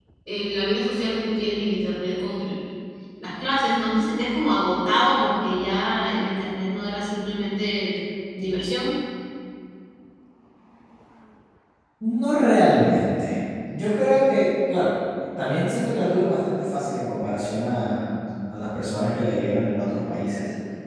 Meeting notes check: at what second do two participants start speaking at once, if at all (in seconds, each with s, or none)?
none